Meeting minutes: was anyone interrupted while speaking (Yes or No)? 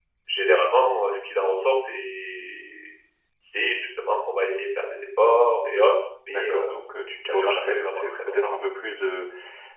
Yes